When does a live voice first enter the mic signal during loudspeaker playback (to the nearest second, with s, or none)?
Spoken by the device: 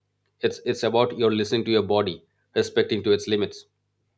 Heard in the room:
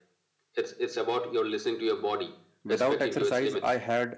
3 s